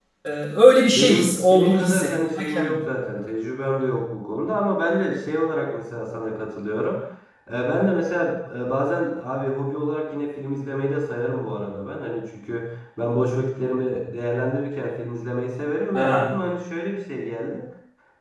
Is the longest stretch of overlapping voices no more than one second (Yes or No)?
No